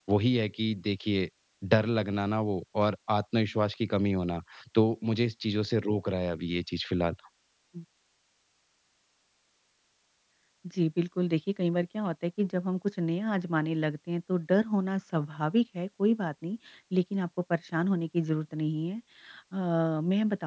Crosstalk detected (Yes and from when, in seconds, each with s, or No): No